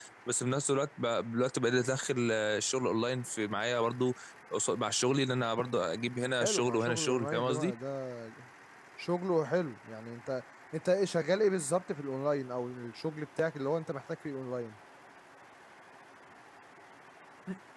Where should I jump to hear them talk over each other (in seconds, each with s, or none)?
6.4 s